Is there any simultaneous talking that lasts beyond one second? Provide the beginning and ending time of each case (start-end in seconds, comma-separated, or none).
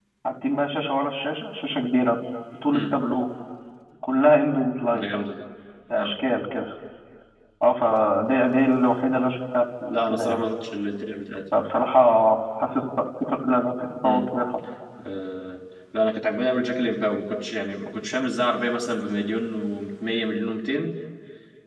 none